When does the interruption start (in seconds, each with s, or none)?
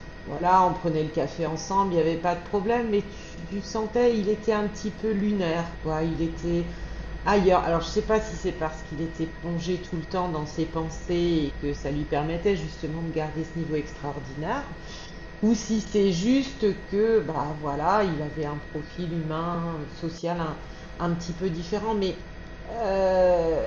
none